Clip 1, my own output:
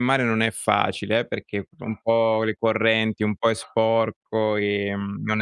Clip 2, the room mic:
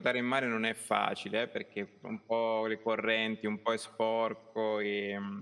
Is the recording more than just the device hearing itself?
No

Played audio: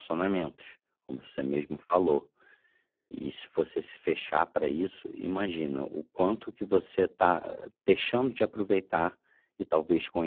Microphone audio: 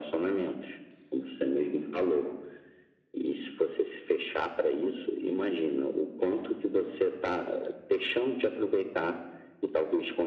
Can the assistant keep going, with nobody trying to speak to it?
Yes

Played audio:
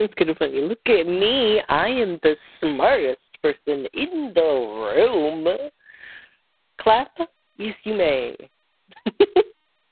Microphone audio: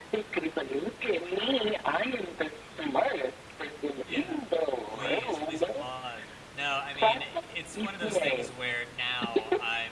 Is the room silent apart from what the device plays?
No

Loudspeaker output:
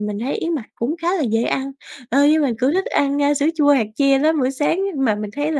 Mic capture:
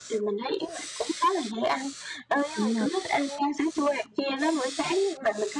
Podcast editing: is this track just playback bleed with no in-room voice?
No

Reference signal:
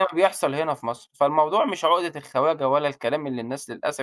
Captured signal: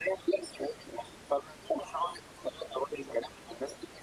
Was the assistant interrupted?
No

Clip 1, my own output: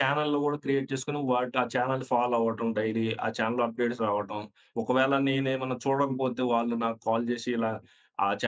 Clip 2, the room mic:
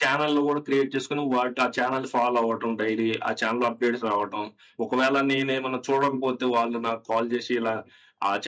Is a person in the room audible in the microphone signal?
No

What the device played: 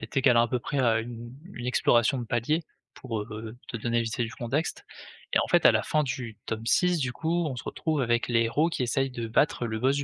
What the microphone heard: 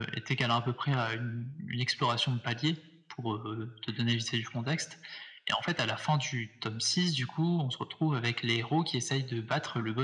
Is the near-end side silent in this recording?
Yes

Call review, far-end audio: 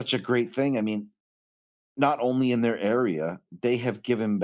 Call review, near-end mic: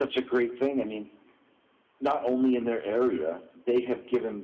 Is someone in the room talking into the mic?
No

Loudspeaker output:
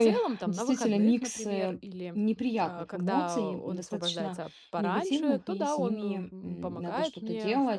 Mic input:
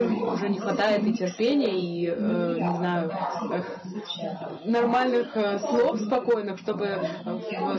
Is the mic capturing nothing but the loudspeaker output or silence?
No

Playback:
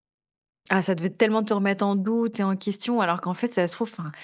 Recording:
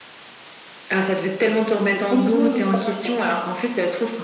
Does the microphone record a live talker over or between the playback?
Yes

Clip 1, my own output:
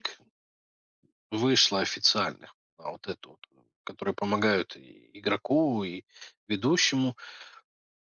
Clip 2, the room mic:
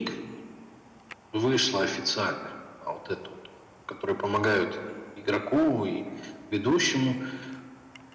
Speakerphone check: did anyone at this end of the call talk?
No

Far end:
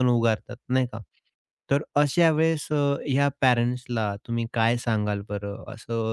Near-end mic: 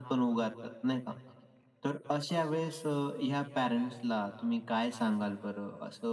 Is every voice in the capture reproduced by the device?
Yes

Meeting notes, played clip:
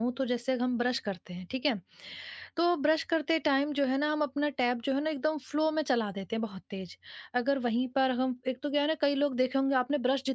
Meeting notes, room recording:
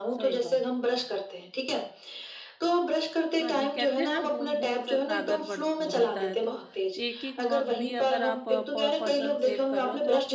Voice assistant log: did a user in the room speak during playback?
Yes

